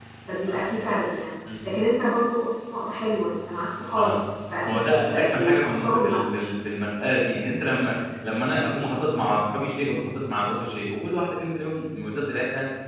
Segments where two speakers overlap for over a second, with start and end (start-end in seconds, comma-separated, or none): 4.7-6.2